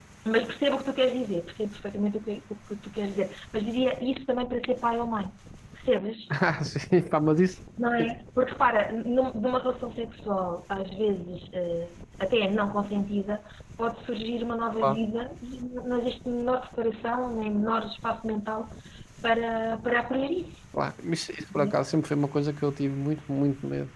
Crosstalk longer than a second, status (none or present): none